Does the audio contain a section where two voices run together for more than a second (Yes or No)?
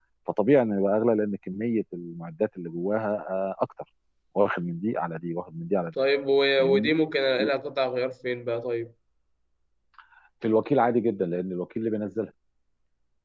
No